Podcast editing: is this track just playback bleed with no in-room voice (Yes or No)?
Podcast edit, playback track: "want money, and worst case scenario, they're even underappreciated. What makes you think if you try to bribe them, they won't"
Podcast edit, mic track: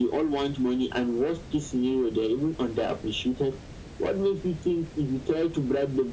Yes